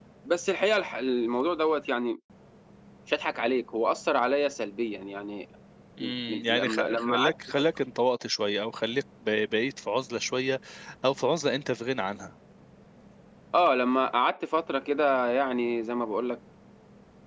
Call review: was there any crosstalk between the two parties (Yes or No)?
Yes